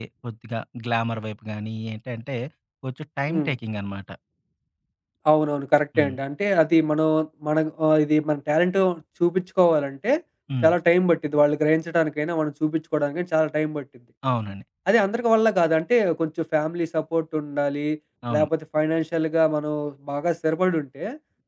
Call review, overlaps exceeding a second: none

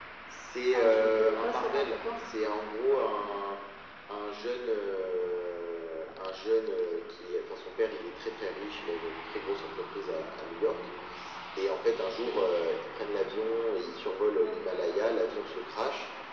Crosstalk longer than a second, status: present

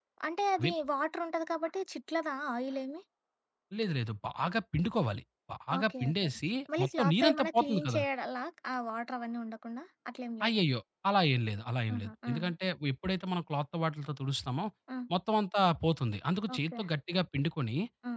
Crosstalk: present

